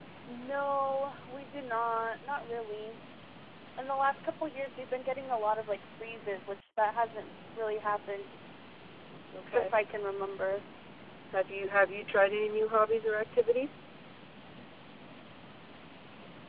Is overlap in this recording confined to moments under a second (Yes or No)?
Yes